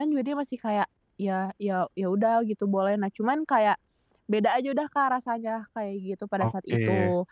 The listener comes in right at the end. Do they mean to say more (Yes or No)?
Yes